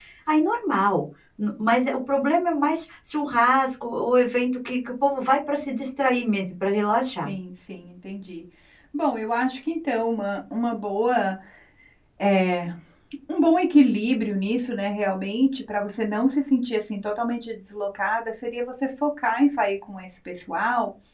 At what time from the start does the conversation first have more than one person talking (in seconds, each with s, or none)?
none